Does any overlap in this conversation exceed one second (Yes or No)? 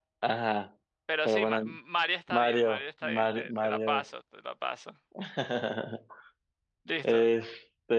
Yes